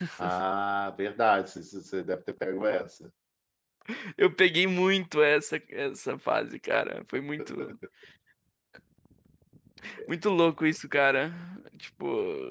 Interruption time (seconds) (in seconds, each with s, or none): none